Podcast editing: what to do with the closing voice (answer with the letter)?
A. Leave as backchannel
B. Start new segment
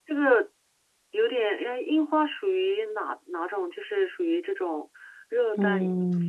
B